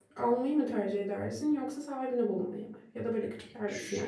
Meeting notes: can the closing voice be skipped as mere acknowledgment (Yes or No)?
No